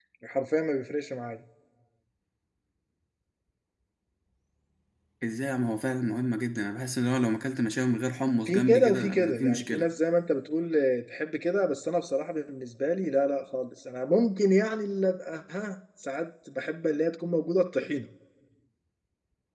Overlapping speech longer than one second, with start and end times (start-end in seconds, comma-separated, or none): 8.5-9.8